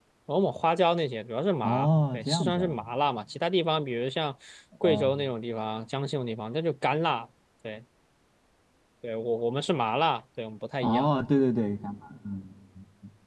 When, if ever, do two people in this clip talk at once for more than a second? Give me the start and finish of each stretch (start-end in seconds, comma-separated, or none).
1.6-2.9